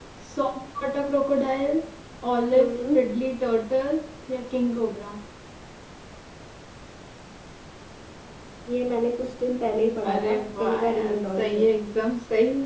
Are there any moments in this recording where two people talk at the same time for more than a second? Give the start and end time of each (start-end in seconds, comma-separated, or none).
10.1-11.7